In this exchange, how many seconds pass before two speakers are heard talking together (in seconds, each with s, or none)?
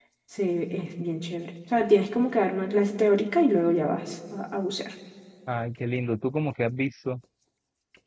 none